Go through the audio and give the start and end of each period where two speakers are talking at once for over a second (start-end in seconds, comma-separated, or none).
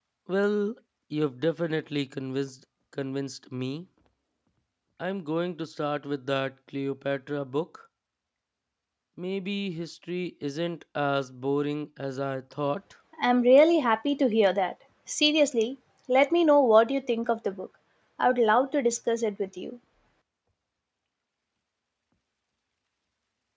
none